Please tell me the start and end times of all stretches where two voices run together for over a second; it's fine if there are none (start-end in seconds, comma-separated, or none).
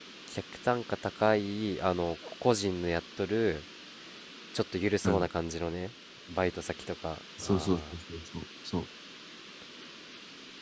none